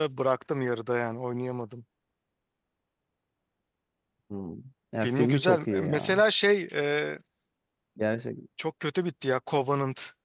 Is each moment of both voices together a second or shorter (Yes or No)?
No